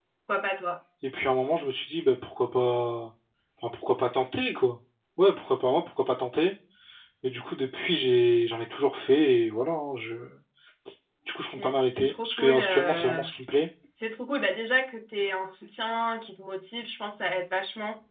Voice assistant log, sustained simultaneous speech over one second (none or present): present